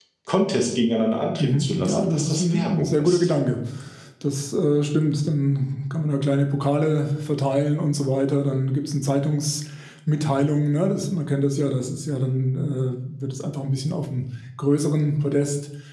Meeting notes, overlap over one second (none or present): present